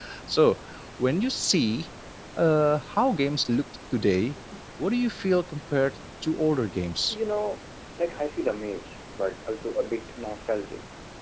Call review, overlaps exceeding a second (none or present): none